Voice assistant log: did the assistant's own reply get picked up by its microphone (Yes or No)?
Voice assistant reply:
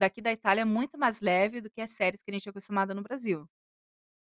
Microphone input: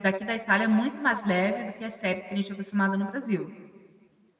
Yes